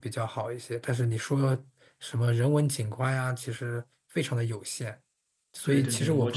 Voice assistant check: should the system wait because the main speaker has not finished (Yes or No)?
No